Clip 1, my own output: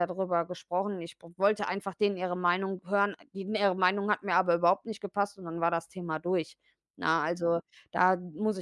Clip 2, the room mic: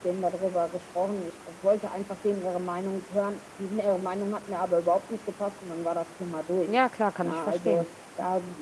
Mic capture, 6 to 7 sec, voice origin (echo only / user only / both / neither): both